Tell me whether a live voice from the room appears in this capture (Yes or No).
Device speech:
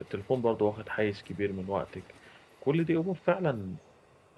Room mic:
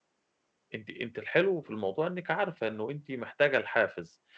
Yes